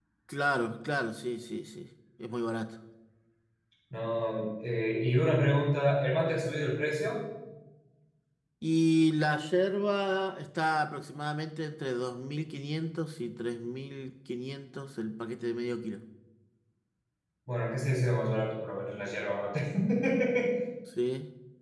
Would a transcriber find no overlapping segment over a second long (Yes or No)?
Yes